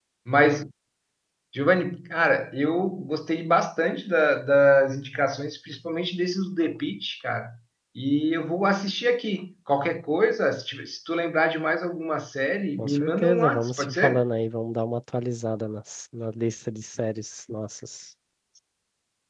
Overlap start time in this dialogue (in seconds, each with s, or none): 12.8 s